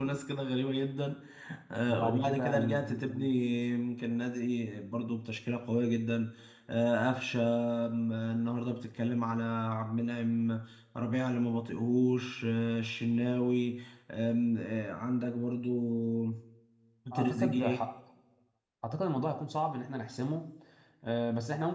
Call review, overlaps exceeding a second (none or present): present